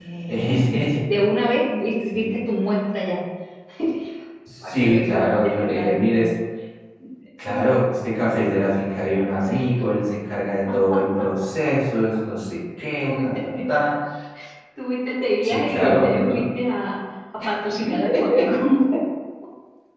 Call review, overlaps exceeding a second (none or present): present